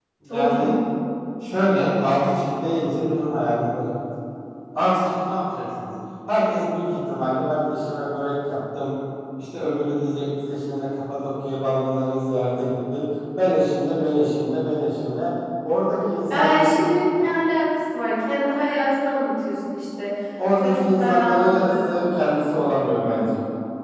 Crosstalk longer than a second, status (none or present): present